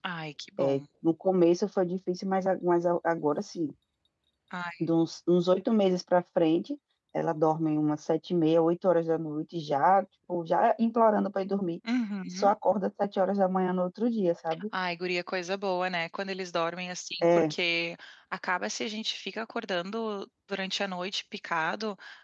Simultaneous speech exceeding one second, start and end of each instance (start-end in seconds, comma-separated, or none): none